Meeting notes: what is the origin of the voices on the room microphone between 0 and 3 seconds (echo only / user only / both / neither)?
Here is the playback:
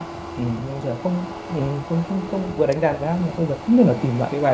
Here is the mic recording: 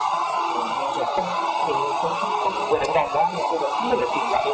echo only